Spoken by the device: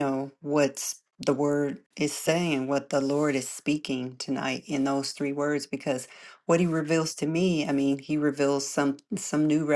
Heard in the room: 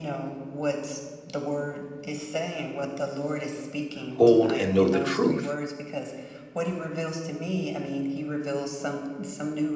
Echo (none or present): present